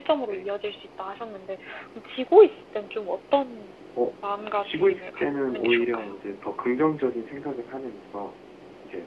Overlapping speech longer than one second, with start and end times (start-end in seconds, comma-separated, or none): 4.6-6.2